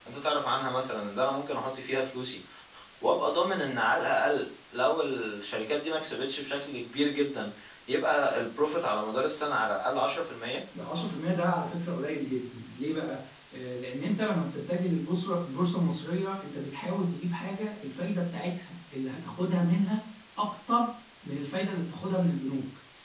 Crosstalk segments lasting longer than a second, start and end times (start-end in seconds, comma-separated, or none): none